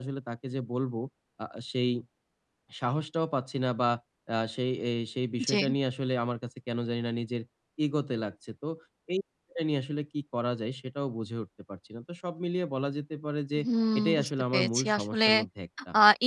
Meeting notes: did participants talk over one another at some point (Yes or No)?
Yes